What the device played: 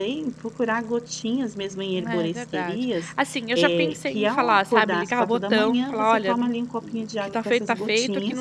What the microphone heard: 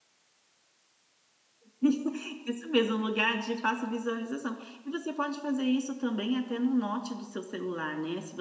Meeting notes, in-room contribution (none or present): present